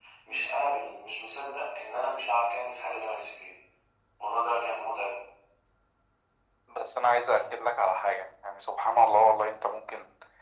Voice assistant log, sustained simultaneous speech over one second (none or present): none